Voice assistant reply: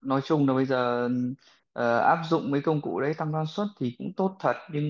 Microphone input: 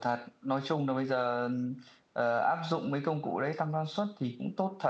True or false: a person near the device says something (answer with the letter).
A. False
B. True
A